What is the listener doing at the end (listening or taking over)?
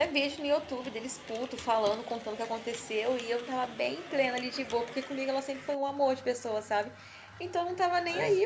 listening